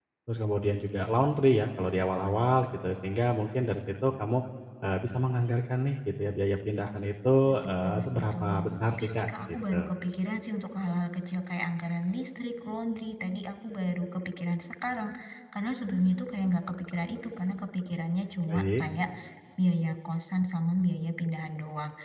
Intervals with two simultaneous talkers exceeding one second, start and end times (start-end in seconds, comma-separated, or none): 7.7-9.7